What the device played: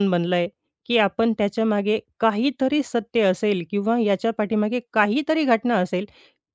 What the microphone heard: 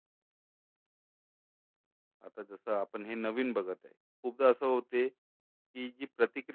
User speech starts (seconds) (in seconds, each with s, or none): 2.2 s